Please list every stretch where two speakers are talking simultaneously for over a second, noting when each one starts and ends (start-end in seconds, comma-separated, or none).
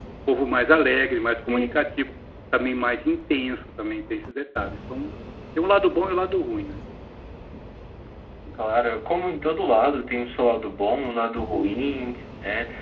none